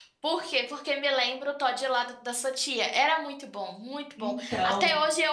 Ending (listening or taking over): listening